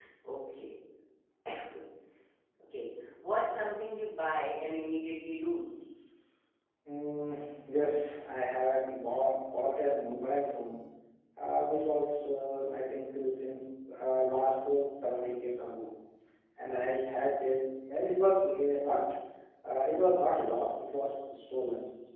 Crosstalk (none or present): none